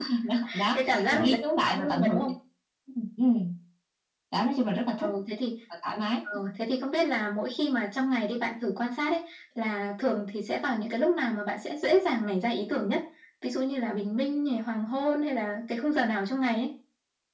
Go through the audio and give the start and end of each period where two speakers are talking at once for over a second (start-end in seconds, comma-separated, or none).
0.7-2.2